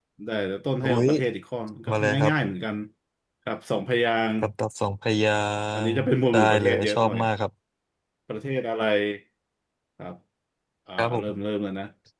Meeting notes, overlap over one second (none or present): present